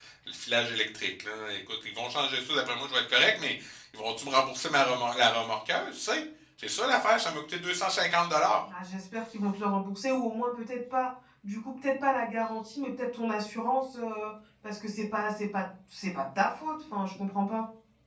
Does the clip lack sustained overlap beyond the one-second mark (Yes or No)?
Yes